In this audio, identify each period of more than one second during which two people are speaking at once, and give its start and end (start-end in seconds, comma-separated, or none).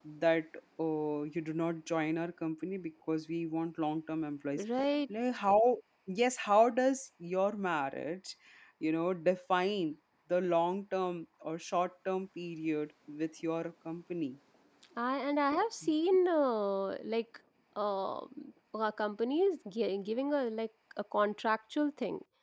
none